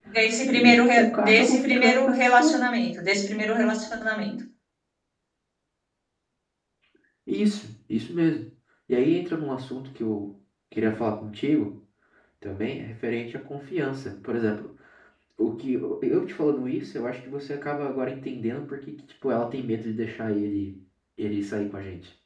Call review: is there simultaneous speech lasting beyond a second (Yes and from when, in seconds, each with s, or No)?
Yes, from 0.5 s